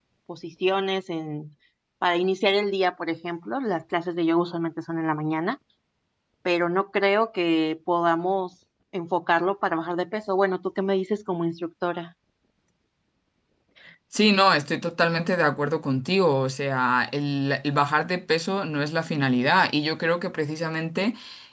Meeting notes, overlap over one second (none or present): none